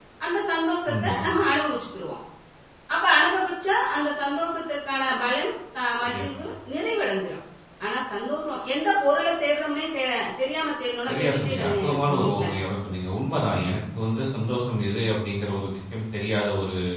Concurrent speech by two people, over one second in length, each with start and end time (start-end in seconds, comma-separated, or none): 11.1-12.4